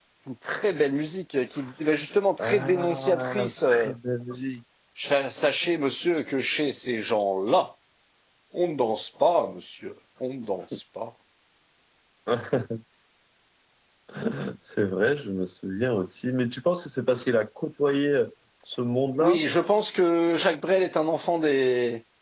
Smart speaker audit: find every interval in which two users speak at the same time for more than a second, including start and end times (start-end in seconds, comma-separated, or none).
2.4-3.9